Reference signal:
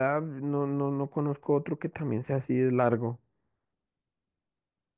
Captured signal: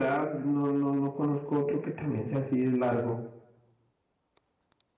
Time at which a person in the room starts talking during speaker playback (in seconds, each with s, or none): none